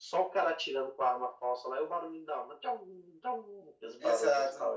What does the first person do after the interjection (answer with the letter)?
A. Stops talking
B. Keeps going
A